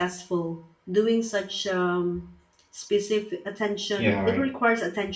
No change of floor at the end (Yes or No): Yes